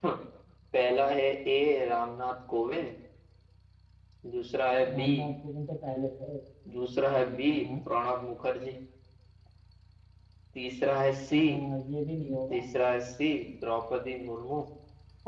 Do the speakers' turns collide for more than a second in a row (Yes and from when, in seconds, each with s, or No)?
No